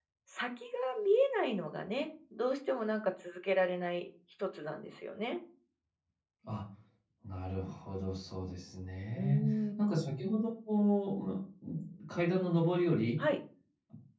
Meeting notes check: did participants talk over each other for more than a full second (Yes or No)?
No